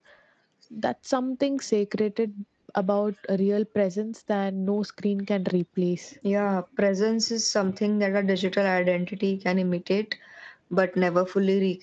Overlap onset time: none

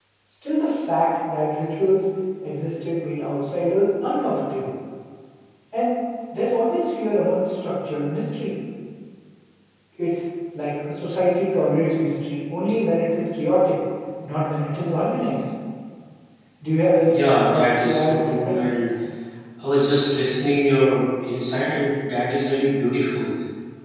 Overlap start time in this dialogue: 17 s

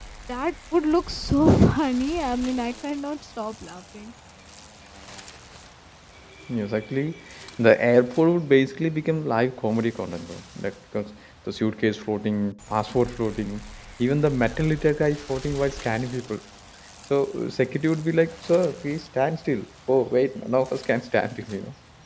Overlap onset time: none

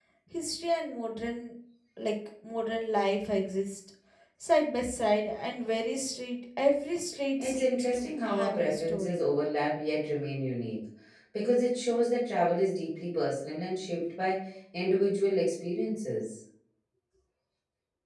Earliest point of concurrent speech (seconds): 7 s

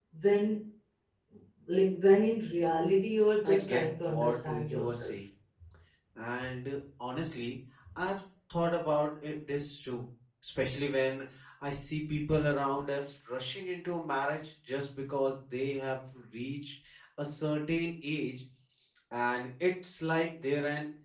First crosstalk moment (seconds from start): 3 s

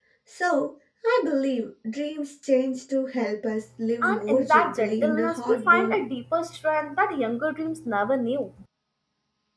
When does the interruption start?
4 s

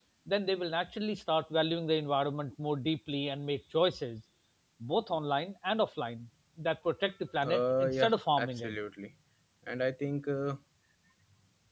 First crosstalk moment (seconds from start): 7 s

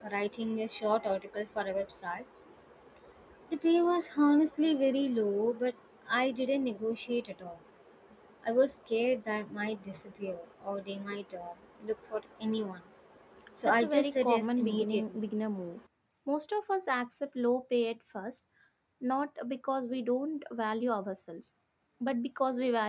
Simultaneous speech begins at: 14 s

